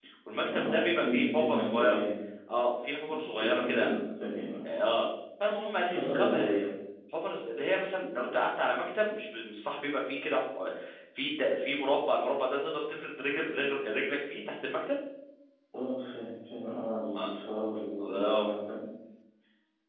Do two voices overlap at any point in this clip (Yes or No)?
Yes